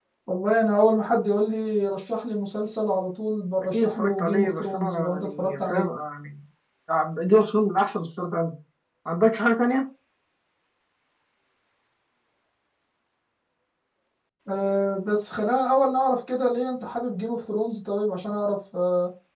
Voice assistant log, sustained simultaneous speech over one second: present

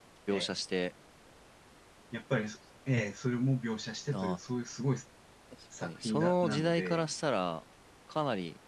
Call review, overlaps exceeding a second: present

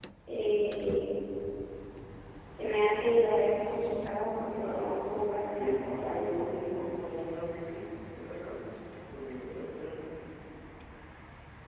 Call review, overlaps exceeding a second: present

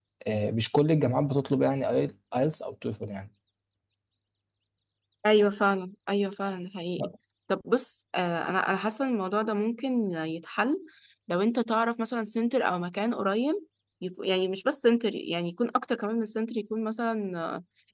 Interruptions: none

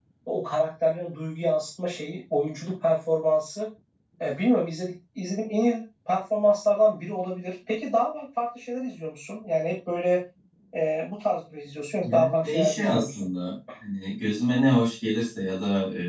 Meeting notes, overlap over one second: present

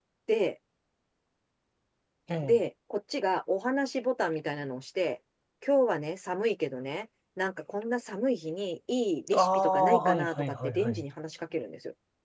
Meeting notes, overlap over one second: present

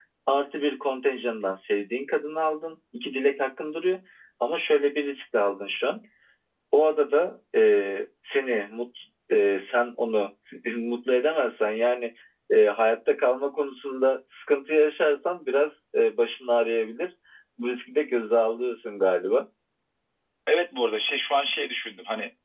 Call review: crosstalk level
none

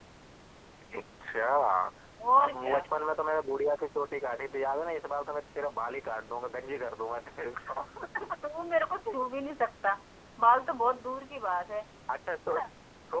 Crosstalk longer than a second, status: none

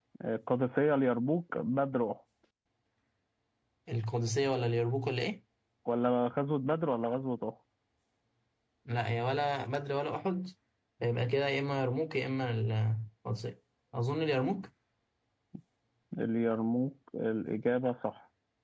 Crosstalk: none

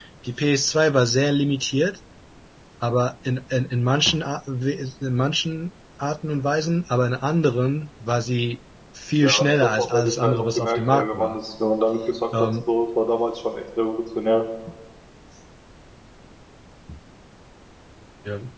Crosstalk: present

